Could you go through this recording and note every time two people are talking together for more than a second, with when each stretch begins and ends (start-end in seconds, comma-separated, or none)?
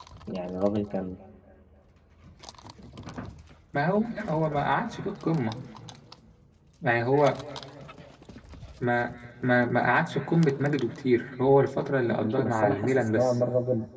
12.1-13.3